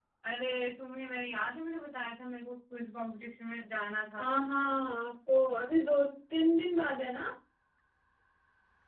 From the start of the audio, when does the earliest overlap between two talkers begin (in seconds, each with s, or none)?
none